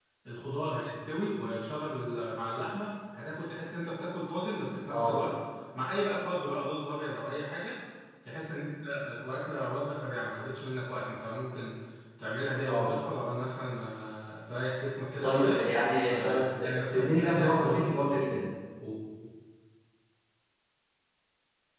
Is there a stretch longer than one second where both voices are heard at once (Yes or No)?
Yes